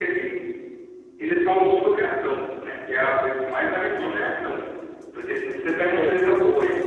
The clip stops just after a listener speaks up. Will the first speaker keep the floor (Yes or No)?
Yes